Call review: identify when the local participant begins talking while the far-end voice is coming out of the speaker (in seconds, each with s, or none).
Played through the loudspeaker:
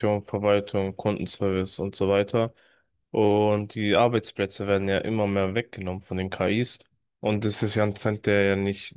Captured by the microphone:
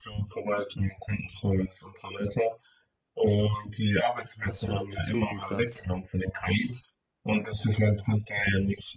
4.3 s